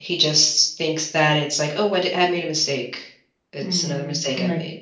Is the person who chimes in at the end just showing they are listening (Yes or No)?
No